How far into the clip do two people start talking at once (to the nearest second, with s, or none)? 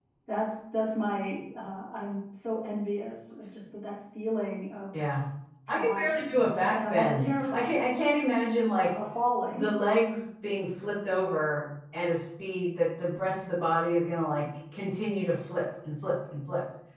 6 s